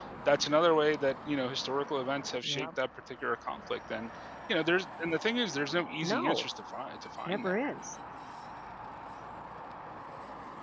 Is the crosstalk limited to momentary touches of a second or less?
Yes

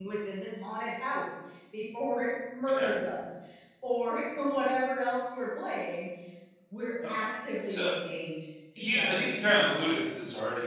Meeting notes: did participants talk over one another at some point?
Yes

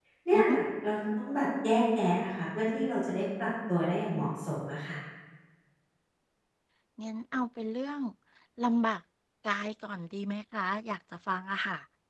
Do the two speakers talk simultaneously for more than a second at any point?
No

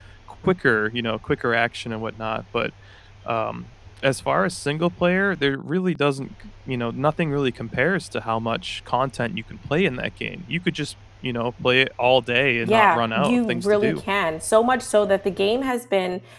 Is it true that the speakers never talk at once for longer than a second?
No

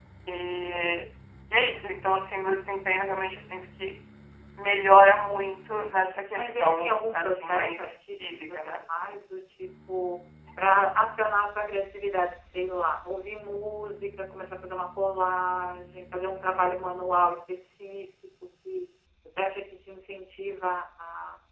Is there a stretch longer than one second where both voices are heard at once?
Yes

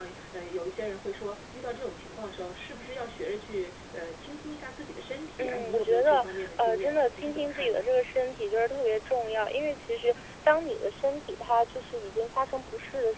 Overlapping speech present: Yes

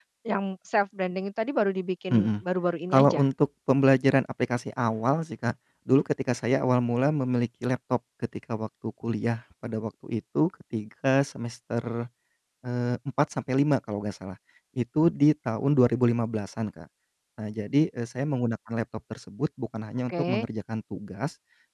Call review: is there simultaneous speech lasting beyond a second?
No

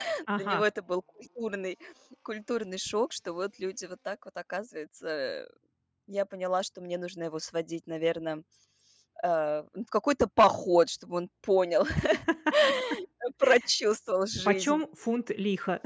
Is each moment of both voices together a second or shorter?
Yes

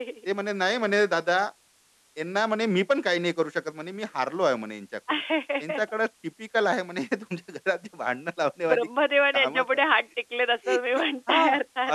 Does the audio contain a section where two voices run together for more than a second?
No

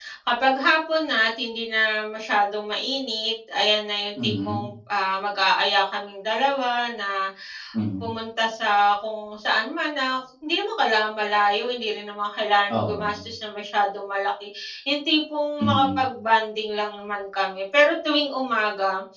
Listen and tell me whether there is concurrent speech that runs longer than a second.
No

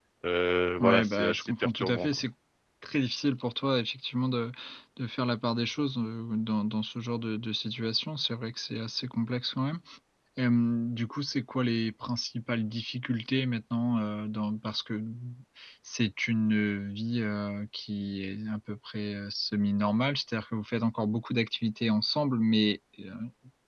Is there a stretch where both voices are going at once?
Yes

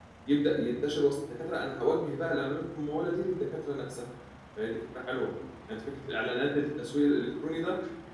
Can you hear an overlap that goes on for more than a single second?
No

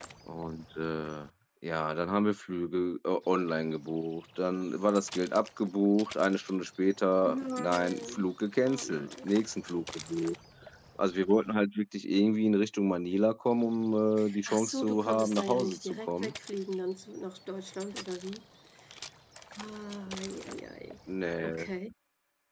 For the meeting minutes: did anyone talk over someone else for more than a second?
Yes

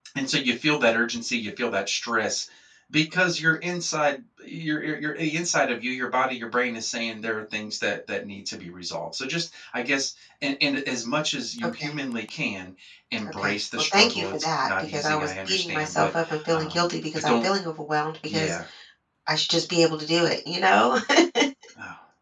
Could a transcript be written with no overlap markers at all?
No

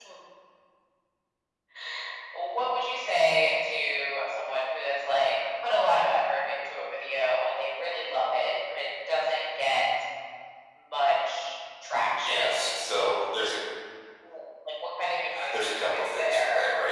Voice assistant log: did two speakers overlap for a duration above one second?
Yes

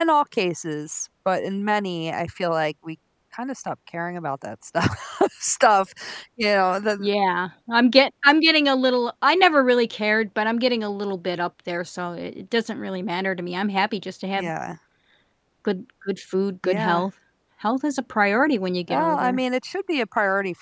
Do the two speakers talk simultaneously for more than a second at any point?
No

